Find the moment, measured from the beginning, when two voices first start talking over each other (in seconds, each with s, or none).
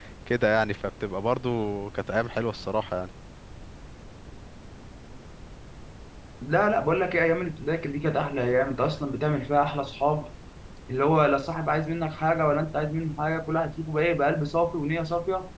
none